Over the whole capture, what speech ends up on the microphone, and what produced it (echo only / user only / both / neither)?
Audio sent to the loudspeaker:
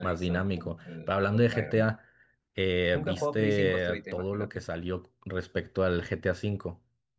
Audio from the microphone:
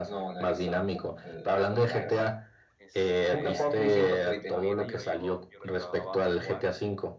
both